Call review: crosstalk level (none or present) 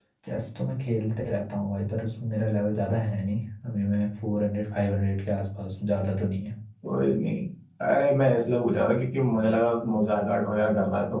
none